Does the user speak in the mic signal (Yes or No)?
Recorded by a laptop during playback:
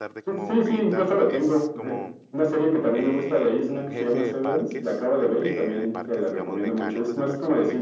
Yes